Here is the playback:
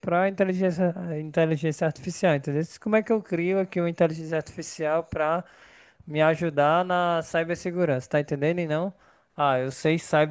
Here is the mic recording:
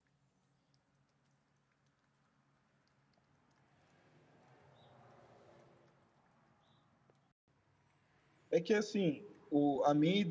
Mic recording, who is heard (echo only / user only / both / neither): user only